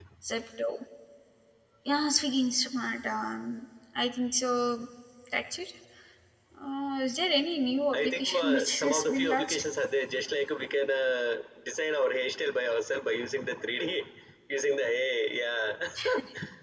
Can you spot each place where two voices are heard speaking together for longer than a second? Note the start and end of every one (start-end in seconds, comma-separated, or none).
7.9-9.6